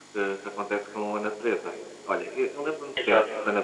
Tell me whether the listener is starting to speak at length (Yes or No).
No